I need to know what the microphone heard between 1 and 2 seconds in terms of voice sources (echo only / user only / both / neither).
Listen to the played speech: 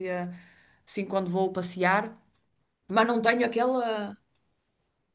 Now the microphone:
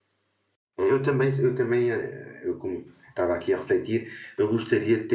user only